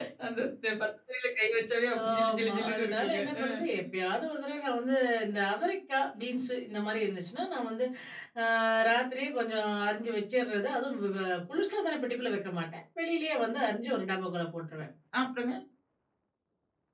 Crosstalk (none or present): present